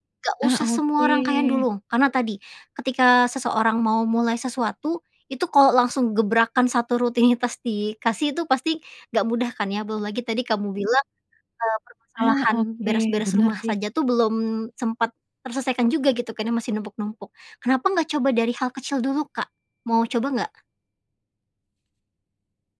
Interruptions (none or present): present